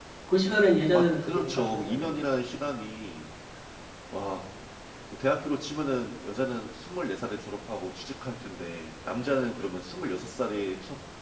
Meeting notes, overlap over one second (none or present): present